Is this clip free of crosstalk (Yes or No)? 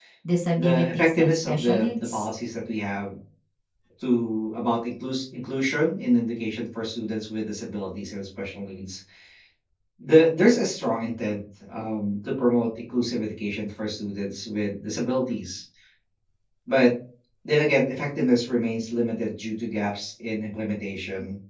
No